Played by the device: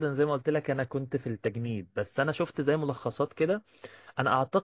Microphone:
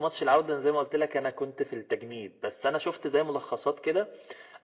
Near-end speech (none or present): none